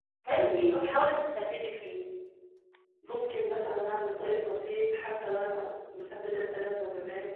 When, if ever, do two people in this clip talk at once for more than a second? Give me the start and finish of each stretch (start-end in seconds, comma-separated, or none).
none